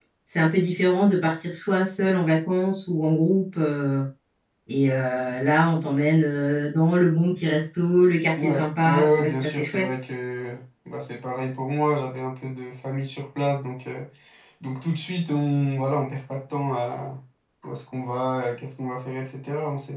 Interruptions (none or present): present